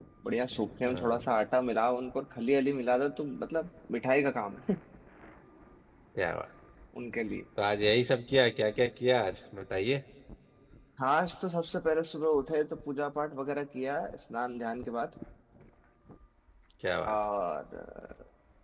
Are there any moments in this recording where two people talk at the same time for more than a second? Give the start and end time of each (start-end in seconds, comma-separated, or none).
none